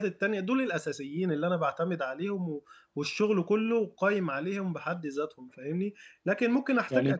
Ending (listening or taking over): listening